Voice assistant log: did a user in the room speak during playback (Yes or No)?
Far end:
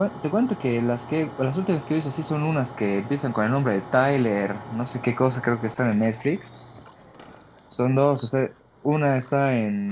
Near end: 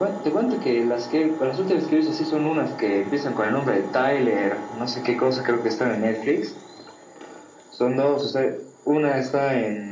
No